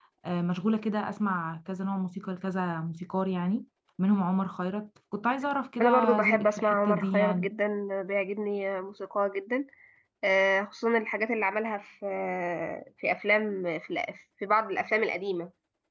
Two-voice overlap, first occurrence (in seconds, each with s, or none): 5.8 s